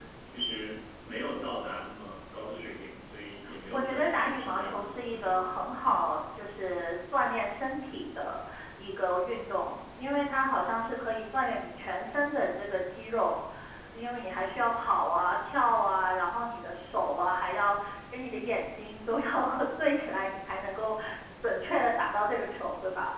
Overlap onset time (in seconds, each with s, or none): 3.7 s